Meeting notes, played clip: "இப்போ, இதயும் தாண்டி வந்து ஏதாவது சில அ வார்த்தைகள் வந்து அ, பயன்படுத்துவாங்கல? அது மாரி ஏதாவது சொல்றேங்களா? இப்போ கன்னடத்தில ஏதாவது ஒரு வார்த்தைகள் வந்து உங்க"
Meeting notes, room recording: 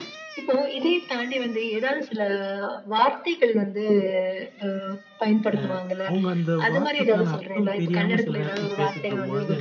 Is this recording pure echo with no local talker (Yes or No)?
No